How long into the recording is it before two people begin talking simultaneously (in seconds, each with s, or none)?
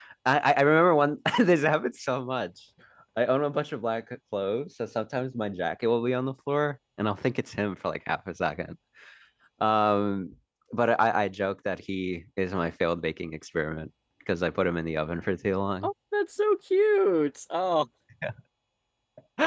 none